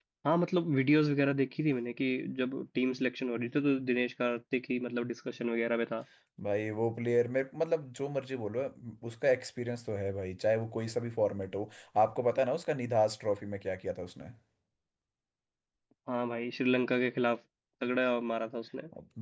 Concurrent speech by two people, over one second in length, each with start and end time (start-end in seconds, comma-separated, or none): none